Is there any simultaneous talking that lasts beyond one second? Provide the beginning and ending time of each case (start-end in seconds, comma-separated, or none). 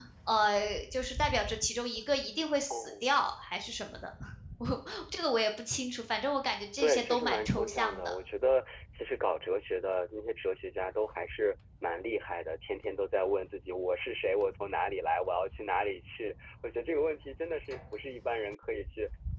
6.8-8.2